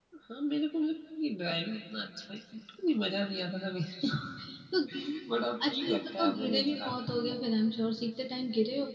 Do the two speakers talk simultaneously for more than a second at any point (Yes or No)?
Yes